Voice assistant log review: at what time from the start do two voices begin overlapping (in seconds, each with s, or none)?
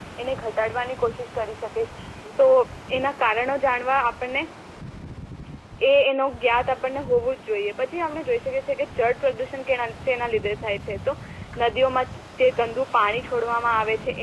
none